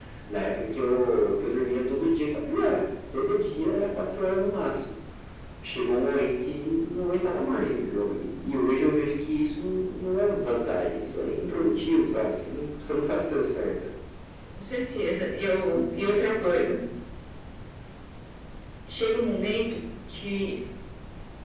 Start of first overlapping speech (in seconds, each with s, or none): none